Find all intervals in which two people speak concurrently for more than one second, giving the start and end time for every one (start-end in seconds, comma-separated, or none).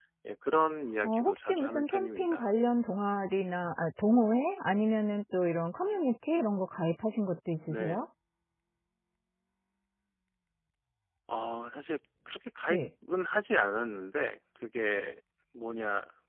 1.0-2.5